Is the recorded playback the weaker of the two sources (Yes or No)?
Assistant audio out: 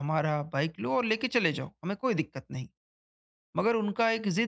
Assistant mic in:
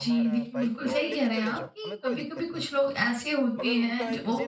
Yes